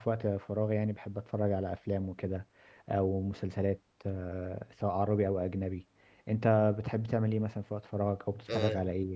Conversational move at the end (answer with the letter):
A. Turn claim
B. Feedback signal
A